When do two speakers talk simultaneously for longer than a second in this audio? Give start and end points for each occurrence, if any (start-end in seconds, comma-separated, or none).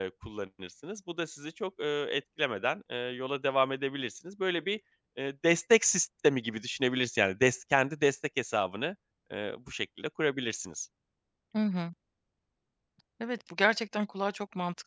none